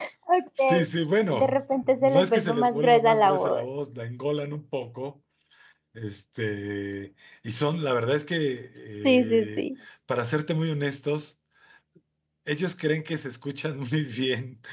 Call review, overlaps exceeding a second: present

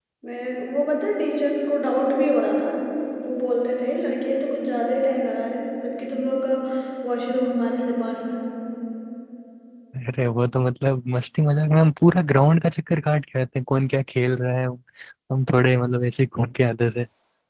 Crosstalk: none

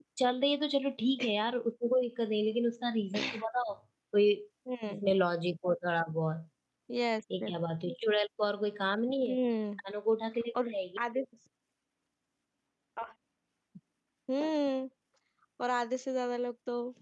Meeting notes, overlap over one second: none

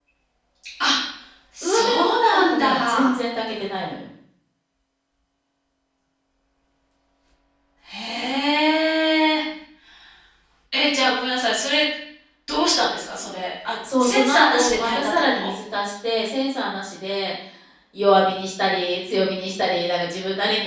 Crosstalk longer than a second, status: present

